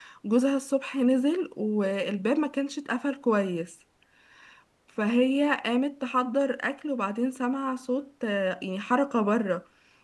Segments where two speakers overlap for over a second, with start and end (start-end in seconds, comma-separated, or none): none